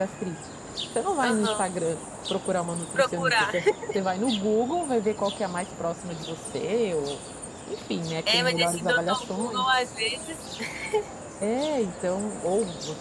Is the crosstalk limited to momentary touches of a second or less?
No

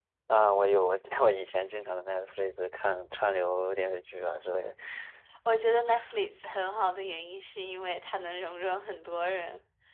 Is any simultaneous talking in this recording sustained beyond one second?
No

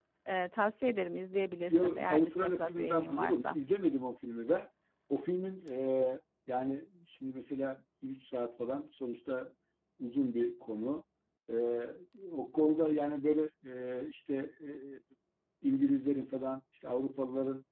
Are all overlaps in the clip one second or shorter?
No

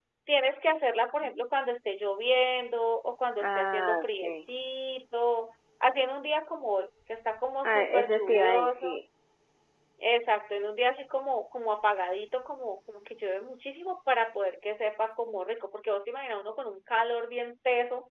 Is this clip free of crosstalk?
No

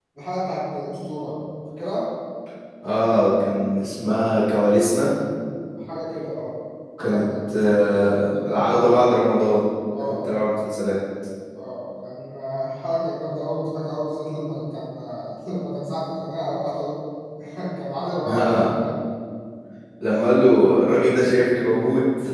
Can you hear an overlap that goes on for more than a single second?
Yes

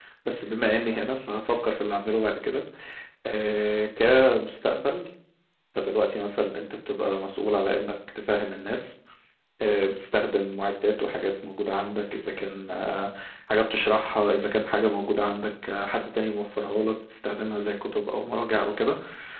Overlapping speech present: No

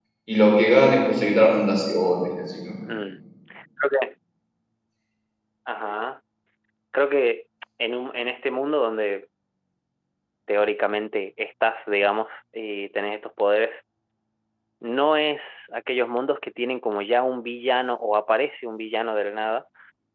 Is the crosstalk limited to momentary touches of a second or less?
Yes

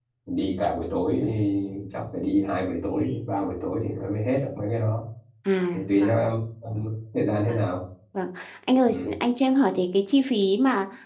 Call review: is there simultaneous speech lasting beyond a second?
No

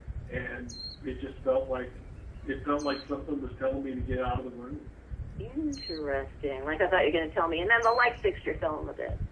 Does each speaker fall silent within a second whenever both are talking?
Yes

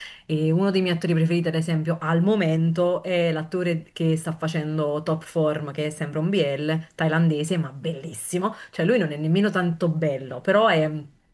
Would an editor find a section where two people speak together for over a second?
No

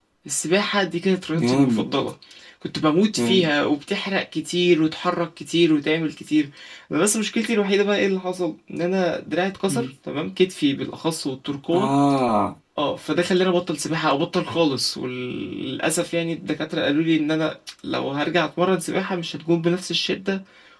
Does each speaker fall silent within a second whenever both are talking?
Yes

